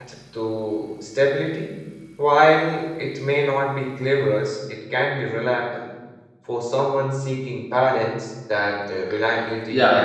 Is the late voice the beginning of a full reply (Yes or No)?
Yes